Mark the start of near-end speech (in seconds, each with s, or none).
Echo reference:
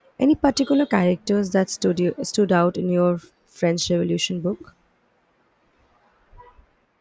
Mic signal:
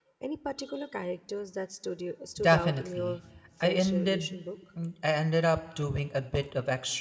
2.4 s